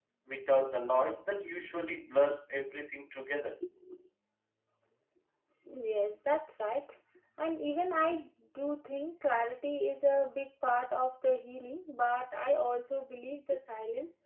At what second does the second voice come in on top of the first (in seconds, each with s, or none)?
none